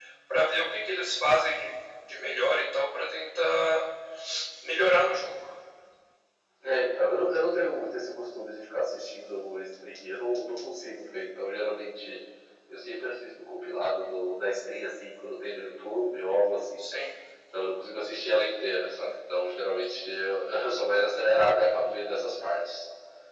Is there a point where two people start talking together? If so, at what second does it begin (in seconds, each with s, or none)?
none